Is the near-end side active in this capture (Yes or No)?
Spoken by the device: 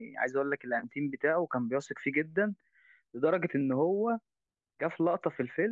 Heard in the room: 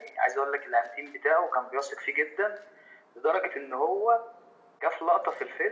No